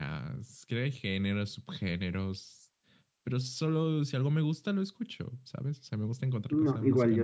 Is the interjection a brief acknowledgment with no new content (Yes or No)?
No